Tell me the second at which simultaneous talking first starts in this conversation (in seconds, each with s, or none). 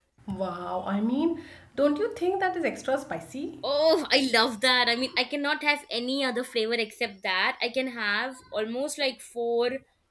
none